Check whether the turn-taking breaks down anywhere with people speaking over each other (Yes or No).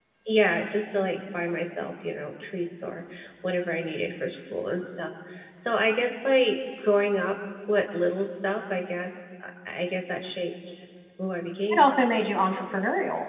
No